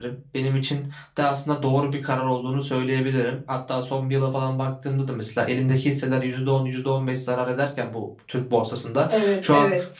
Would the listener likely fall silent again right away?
Yes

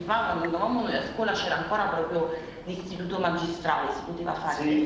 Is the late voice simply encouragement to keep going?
No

